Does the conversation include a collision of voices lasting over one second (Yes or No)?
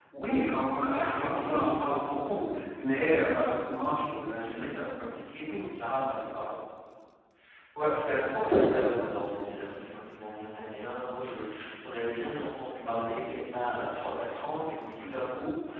No